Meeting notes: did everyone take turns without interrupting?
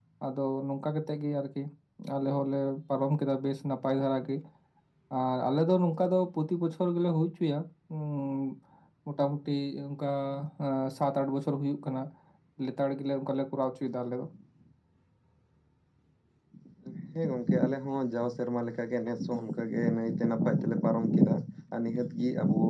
Yes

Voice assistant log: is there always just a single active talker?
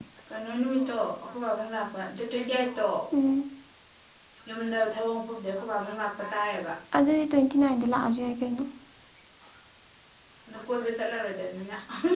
Yes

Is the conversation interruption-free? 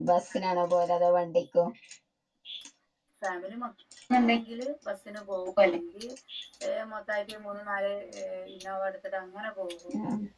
Yes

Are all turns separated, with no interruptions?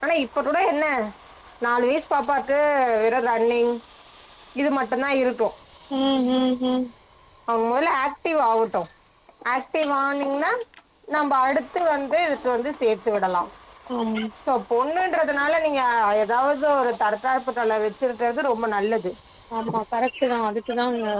Yes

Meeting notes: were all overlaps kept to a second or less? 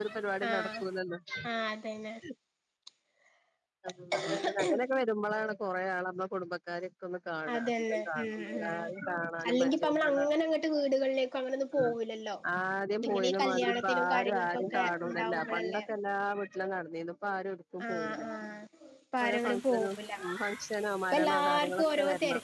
No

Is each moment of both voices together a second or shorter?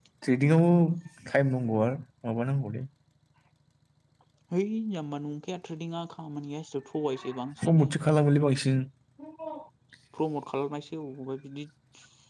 Yes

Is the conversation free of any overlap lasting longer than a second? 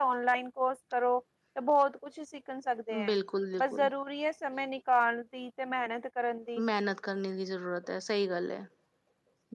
Yes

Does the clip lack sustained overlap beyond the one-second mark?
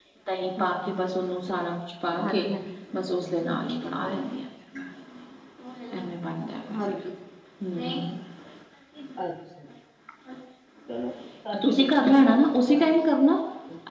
No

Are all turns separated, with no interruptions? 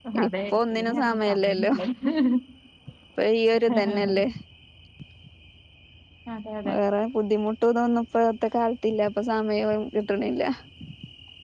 No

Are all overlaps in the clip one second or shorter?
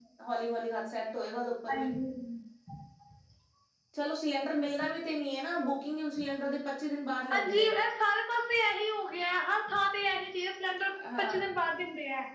Yes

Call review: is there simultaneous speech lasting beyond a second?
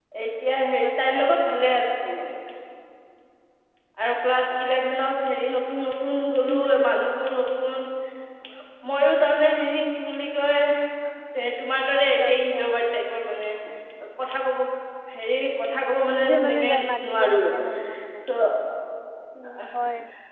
Yes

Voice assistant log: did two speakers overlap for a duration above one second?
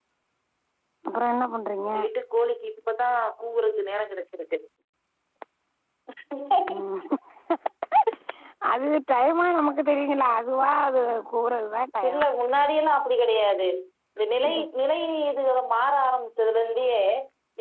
No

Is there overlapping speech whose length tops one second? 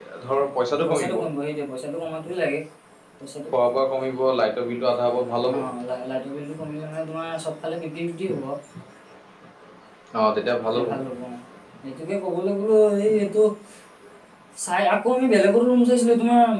No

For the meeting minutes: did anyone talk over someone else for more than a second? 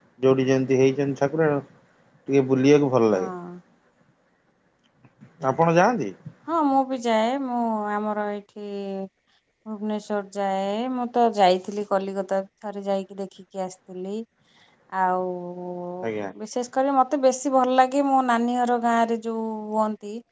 No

